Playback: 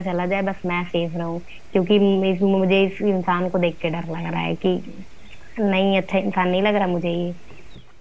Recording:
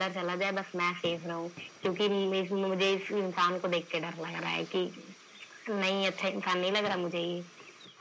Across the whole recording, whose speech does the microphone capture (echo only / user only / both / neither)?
echo only